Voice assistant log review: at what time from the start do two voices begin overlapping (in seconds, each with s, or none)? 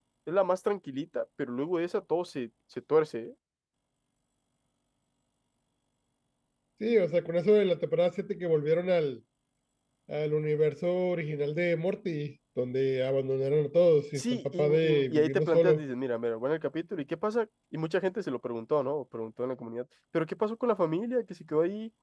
14.2 s